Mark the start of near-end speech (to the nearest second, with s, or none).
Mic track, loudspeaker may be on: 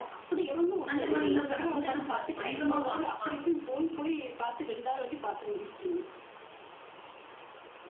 1 s